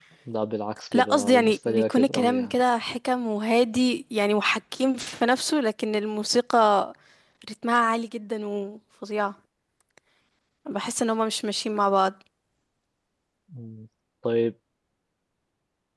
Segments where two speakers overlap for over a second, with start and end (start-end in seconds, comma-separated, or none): 0.9-2.5